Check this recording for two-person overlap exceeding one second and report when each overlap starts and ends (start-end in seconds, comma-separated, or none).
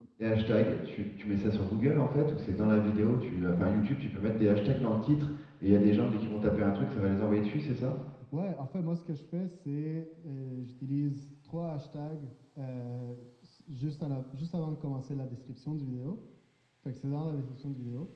none